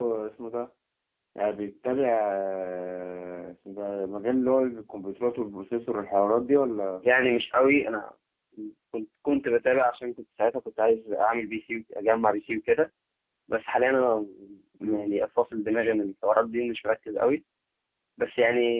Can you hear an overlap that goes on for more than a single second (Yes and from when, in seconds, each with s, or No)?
No